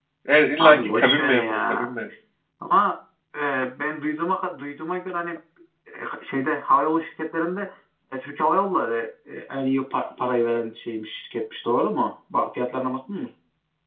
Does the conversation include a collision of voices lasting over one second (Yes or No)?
Yes